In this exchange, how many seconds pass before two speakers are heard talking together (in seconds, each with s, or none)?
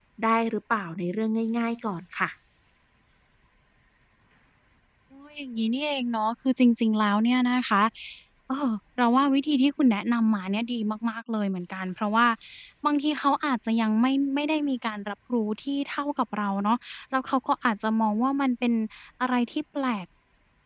none